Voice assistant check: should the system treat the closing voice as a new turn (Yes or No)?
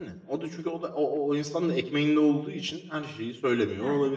No